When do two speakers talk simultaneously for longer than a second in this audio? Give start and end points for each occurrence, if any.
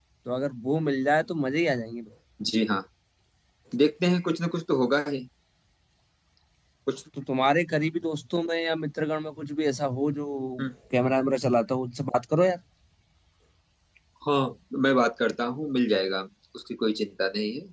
none

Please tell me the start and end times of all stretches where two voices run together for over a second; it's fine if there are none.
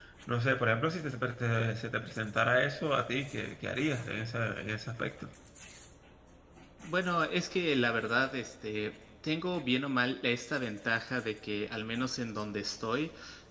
none

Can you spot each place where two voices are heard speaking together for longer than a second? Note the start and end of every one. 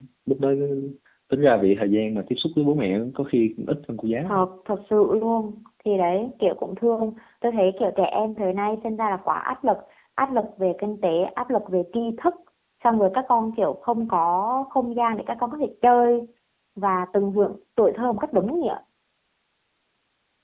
none

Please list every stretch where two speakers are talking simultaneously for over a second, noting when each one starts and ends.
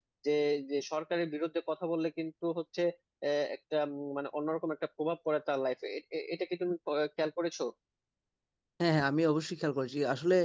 none

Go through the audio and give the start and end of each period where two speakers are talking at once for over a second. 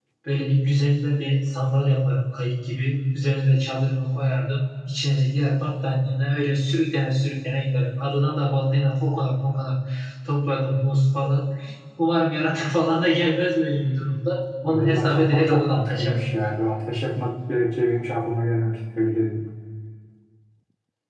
14.7-16.2

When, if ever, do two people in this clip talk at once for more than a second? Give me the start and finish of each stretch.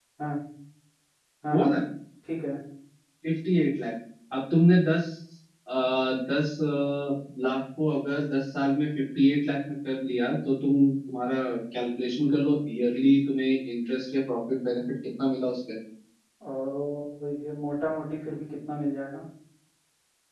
none

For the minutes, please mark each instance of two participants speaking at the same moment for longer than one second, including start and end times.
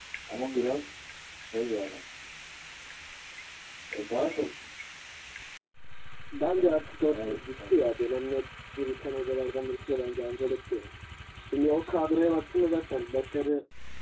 6.5-7.7

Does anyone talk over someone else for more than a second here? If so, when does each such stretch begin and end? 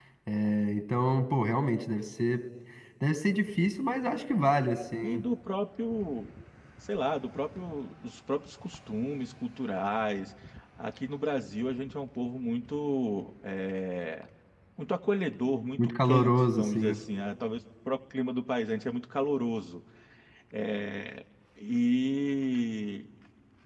15.8-17.0

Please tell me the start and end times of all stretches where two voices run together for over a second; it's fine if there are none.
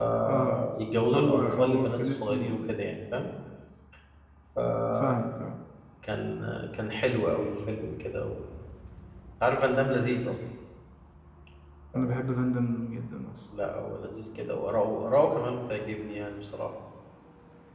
1.1-2.6

